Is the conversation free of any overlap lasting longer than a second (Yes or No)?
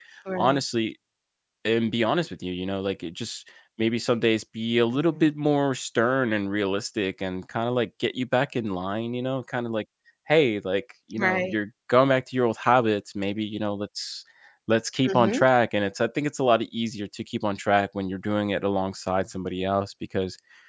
Yes